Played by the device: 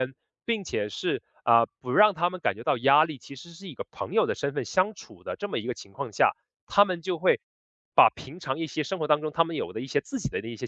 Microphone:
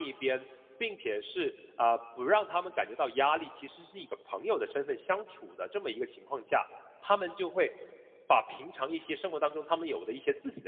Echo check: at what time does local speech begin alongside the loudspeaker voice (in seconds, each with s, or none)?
none